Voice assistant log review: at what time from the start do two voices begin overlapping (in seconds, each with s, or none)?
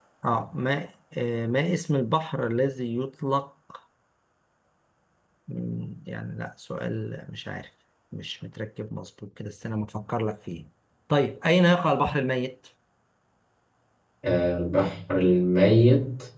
none